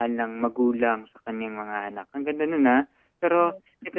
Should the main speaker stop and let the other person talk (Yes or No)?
No